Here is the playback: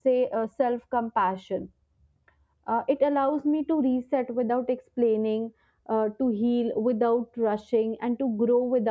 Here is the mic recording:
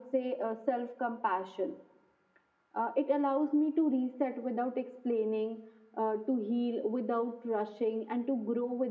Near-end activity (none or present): none